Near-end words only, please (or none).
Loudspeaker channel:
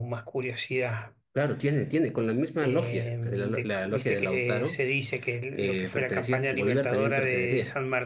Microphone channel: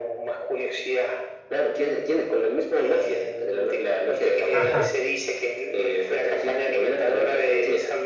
Ajá.